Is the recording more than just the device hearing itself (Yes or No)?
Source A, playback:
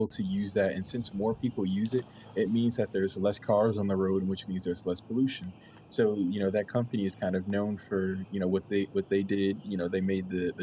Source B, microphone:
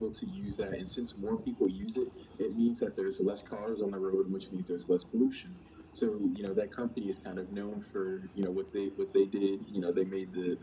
No